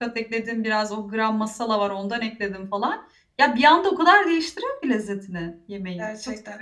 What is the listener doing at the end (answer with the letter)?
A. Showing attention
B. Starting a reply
B